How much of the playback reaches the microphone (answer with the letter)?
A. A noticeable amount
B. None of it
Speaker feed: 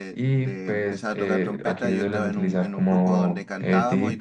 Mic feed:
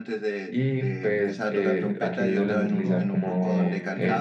A